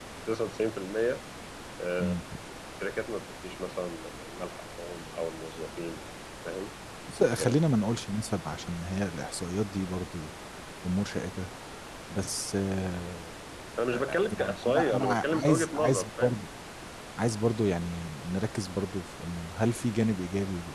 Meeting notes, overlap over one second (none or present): present